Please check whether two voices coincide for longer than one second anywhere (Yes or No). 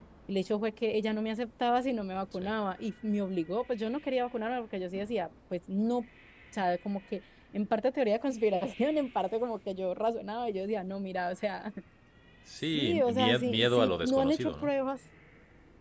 Yes